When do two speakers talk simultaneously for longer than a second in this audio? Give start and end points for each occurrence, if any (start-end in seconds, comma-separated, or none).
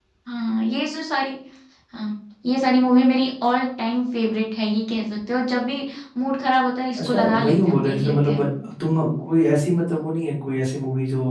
7.0-8.4